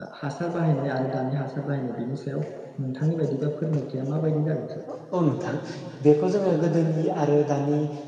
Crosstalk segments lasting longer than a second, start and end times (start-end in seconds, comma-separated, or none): none